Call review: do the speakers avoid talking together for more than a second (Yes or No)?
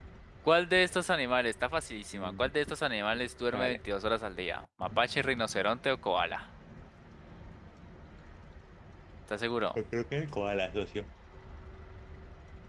Yes